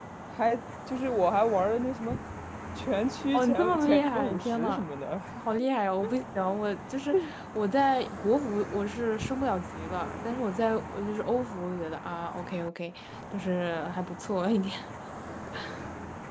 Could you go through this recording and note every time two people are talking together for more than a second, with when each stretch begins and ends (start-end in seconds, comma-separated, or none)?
3.3-4.8